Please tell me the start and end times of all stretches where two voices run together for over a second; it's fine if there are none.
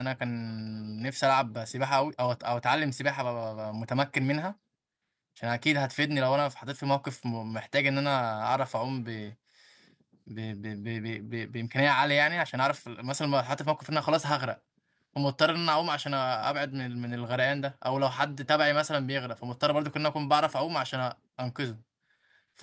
none

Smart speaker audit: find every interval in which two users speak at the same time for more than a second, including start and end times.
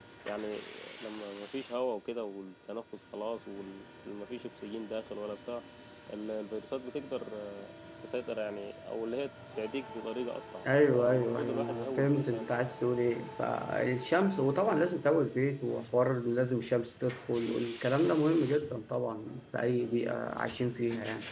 10.9-12.5

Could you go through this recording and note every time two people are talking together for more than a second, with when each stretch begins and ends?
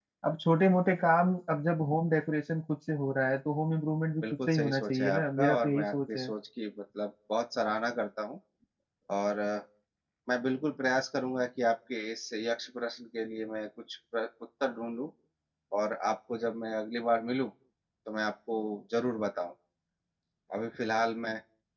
4.2-6.3

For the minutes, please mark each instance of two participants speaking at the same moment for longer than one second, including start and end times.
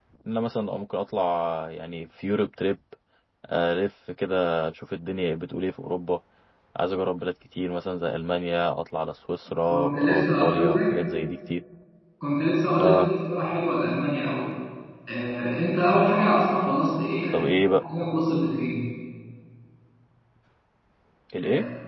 9.7-10.9

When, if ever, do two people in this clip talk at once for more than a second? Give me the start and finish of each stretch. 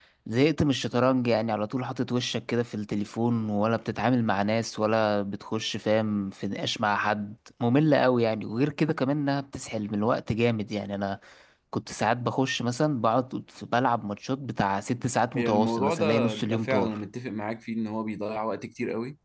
15.3-17.0

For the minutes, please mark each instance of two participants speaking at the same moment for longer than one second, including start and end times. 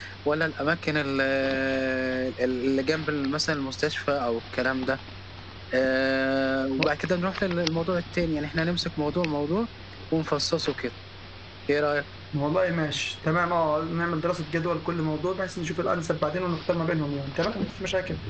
none

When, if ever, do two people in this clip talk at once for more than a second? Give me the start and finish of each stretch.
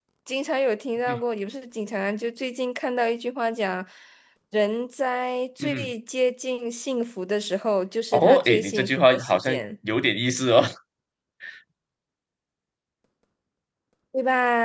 8.1-9.6

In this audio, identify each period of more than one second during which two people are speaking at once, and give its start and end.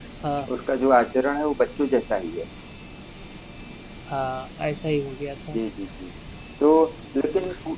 none

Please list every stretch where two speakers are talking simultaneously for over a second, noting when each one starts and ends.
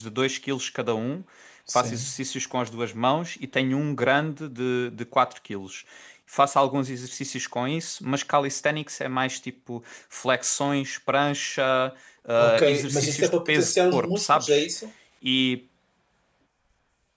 12.4-14.7

